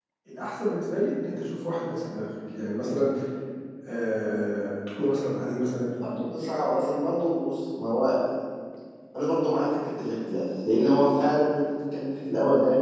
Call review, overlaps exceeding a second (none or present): none